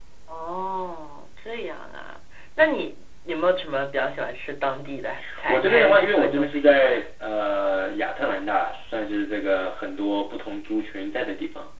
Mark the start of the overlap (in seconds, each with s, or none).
5.5 s